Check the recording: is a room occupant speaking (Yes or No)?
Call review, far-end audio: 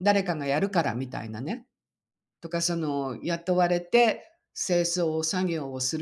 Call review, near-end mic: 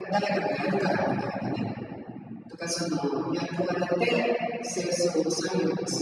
No